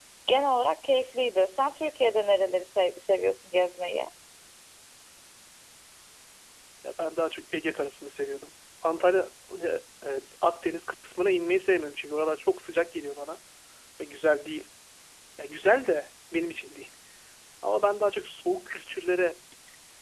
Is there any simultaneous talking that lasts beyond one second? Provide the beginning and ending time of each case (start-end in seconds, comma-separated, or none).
none